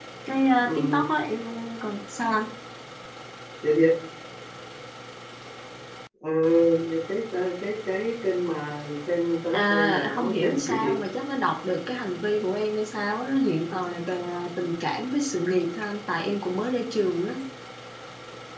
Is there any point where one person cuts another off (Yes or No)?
Yes